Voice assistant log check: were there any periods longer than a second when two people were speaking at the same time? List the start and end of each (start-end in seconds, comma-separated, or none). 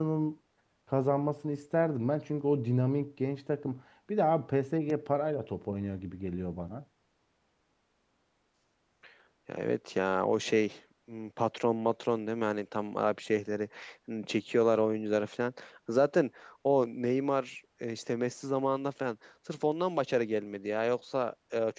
none